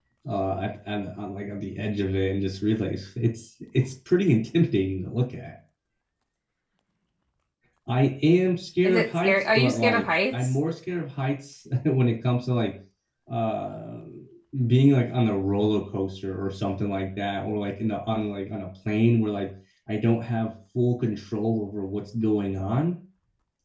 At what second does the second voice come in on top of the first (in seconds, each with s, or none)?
8.8 s